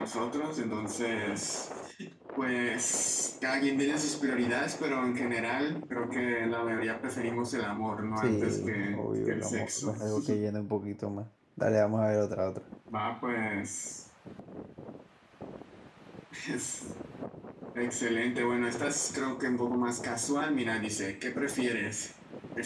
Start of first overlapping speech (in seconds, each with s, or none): 8.2 s